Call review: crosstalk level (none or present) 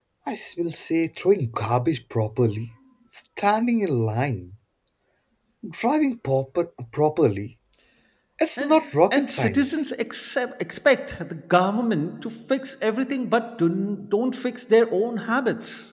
present